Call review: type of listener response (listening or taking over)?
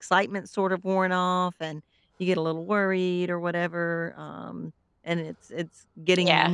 listening